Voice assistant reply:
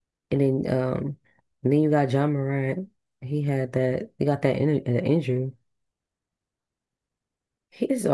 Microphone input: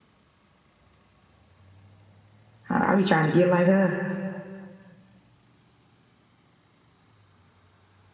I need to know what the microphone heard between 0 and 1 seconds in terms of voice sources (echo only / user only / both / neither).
neither